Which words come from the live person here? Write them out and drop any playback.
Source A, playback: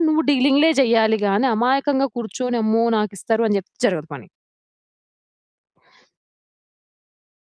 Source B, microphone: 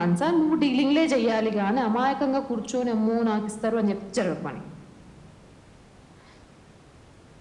none

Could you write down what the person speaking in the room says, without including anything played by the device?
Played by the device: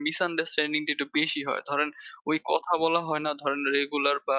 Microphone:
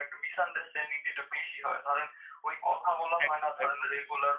একদম, একদম।

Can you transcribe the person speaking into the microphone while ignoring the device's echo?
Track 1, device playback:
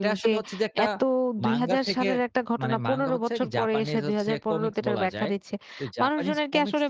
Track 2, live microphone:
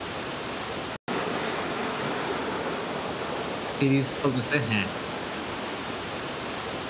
সিরিজ চলতেছে হ্যাঁ।

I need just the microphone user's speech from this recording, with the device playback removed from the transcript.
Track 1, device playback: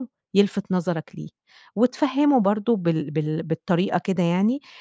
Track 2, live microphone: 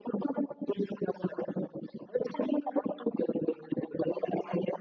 none

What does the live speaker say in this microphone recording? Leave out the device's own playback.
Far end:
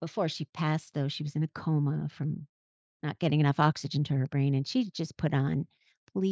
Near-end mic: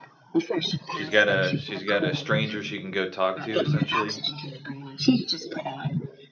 She's got a she's got a stranger she can go talk to, essentially?

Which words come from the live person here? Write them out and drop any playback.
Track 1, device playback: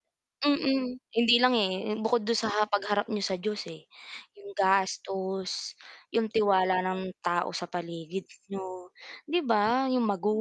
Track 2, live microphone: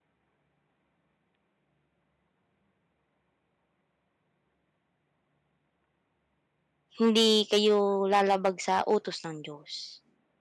hindi kayo, lalabag sa utos ng Diyos.

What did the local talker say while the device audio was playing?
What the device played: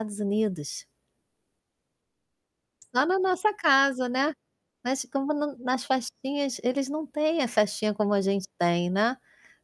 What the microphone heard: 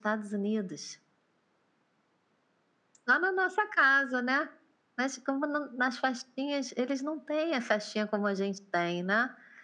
none

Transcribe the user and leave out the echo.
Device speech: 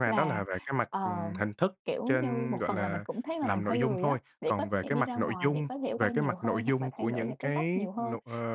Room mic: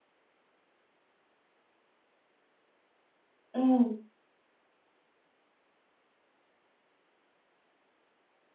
Ừm.

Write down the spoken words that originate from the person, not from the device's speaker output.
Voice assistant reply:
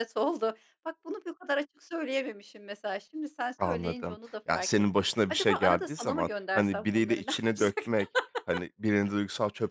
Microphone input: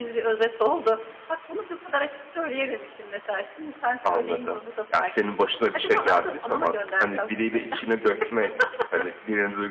none

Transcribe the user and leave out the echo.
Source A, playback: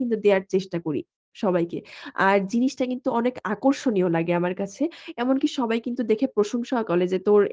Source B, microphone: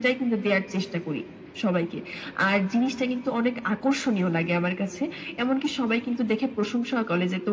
none

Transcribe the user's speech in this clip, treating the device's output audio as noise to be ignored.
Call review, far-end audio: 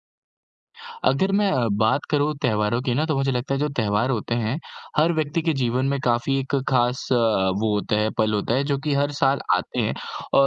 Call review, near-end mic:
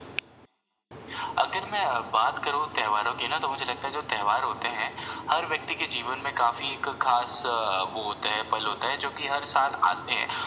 none

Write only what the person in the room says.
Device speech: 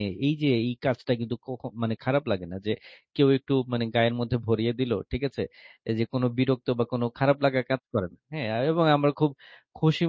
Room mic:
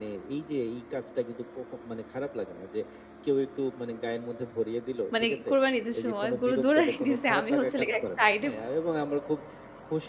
মানে কুরবানী ঈদের সময় গরু দৌড়ানি দিছে। আমি হচ্ছিলো গিয়ে এক সাইডে

